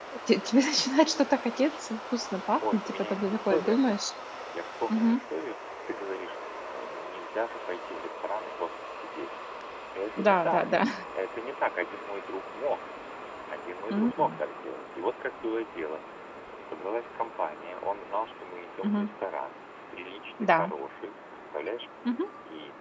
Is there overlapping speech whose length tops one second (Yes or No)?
Yes